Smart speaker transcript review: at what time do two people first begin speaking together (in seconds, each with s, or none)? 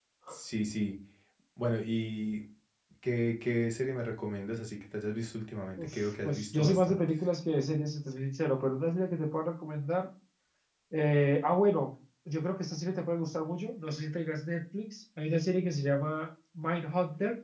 5.8 s